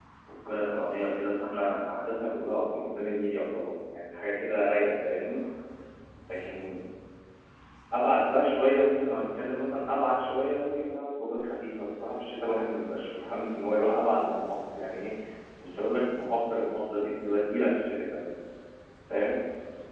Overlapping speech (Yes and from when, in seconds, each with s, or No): No